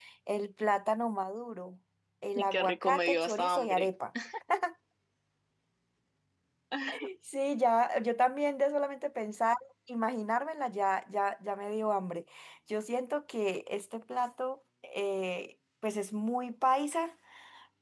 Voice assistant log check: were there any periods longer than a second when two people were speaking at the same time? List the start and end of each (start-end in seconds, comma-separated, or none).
2.4-3.9